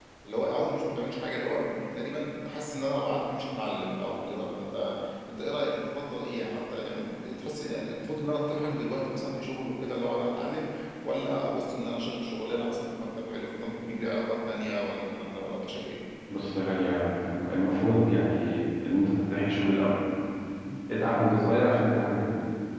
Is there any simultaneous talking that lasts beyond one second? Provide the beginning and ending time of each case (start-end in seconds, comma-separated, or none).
none